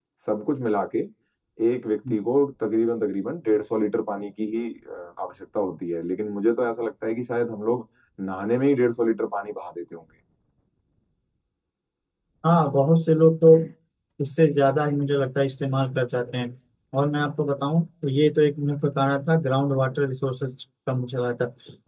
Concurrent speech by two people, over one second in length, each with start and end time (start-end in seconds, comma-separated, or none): none